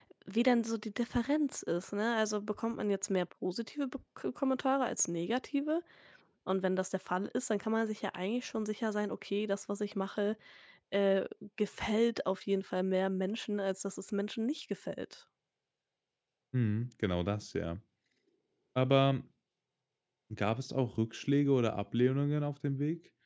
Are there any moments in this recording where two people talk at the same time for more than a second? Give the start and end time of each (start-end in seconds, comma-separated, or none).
none